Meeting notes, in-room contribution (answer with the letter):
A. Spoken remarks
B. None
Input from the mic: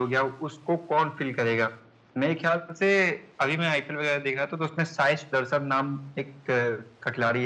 B